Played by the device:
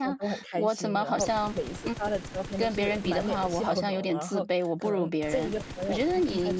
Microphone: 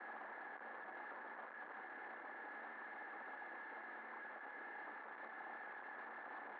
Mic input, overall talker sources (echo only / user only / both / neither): neither